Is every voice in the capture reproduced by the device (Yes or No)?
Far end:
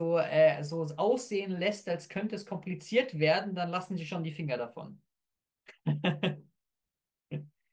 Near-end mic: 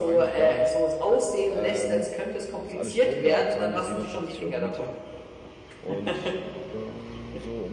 No